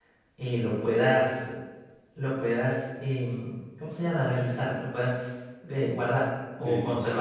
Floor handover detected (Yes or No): Yes